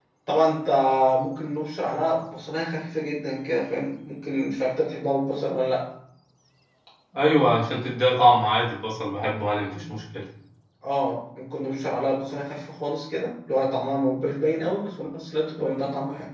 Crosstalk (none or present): none